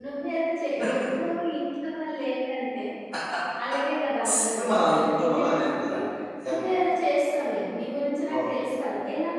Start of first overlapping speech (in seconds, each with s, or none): 4.2 s